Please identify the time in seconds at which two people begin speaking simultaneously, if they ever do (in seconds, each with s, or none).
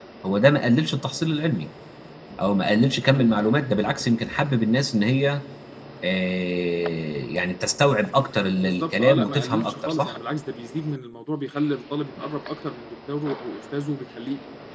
8.5 s